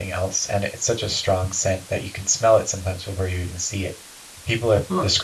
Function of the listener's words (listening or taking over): listening